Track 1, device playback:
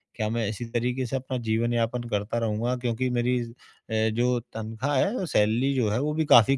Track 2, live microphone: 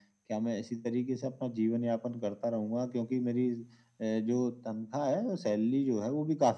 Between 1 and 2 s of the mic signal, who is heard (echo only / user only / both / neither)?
echo only